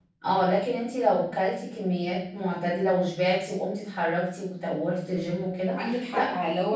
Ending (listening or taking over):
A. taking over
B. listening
A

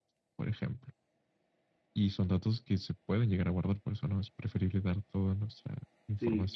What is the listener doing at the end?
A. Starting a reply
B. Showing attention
A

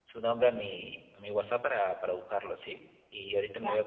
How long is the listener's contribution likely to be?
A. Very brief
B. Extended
A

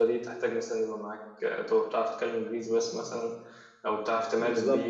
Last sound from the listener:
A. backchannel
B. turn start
A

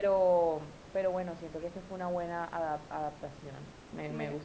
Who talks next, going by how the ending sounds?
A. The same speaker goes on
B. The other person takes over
B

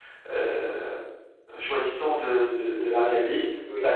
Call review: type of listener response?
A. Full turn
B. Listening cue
A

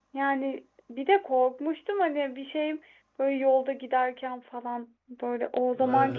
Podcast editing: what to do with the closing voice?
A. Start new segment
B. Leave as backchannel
B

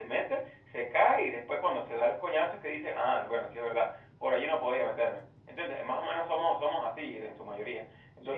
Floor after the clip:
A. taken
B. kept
A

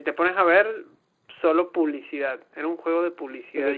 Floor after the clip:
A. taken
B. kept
A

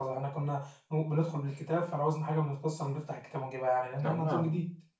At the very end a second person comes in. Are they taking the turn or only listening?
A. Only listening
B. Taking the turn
B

